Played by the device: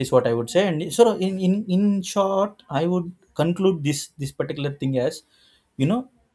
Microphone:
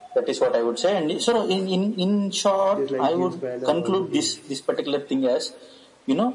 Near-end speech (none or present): present